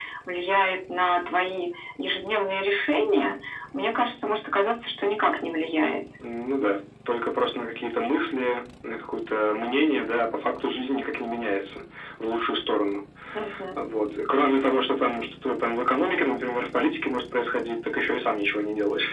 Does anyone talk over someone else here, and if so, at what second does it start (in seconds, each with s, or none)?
none